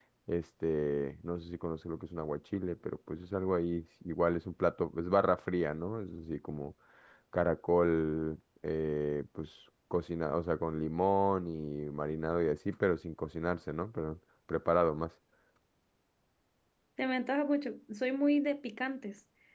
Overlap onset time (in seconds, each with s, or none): none